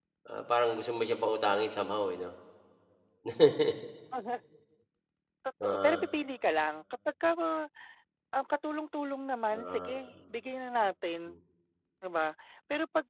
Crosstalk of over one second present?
No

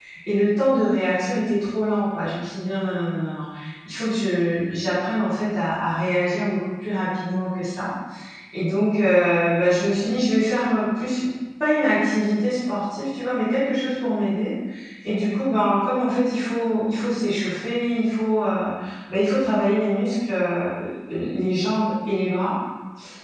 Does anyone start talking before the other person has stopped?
No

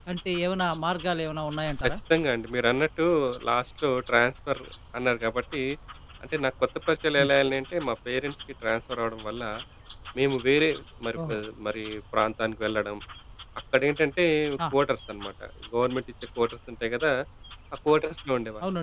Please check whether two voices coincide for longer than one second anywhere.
No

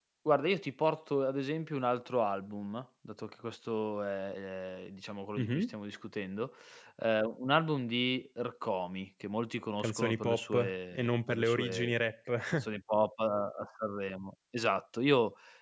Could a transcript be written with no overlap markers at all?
No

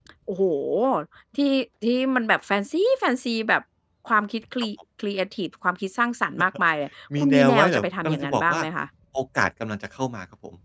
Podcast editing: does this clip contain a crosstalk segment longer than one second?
Yes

